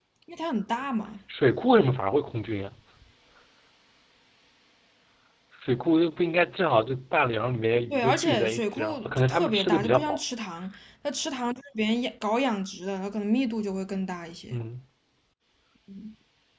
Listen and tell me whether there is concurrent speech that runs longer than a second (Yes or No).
Yes